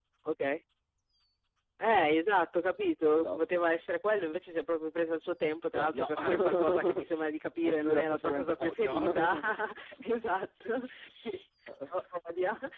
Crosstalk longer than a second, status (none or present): present